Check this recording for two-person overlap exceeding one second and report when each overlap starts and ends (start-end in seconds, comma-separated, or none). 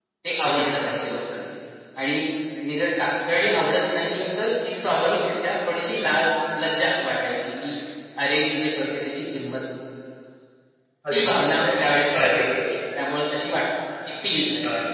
11.1-12.4